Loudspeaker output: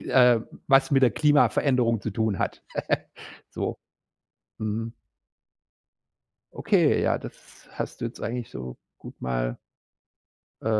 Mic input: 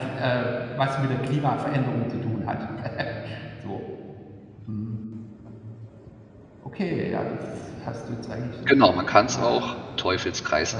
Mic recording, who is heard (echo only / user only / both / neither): both